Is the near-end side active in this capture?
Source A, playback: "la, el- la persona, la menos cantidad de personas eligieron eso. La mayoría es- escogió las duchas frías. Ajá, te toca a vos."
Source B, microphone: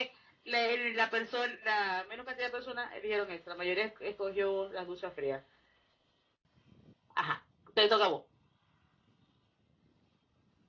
No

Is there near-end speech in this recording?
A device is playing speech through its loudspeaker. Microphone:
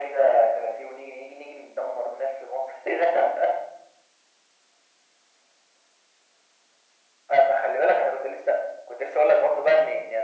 No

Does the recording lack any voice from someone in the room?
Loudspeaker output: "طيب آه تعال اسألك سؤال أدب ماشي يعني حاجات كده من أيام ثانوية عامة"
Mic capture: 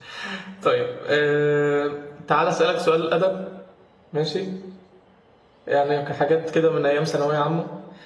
Yes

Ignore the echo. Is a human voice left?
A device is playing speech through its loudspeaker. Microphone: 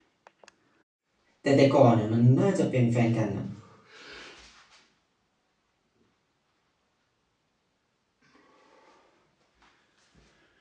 Yes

